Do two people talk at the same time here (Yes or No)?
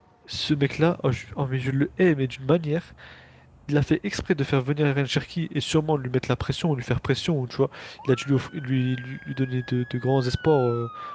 No